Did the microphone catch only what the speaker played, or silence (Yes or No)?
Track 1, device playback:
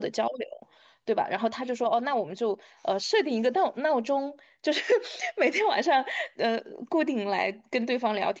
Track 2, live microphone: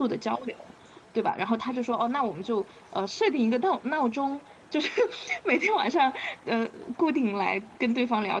Yes